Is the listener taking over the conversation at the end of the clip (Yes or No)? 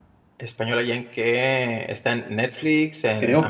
Yes